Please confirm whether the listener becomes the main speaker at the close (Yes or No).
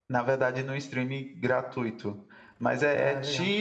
No